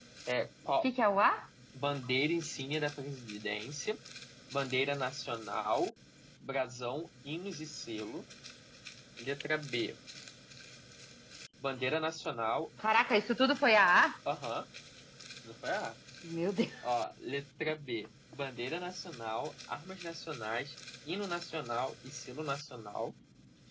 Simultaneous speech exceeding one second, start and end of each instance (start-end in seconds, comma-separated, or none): none